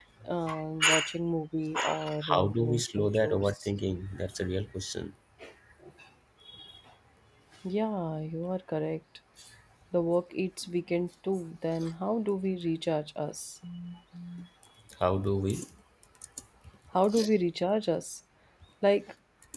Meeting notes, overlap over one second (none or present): present